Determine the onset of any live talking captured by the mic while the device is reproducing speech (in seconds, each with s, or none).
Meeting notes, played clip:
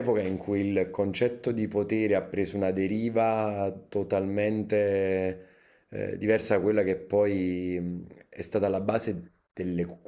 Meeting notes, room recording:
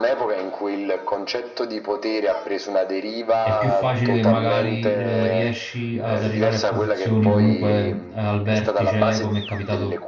3.4 s